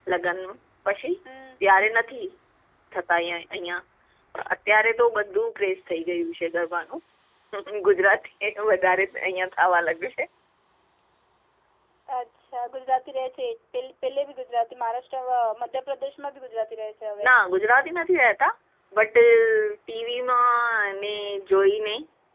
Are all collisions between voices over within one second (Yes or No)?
Yes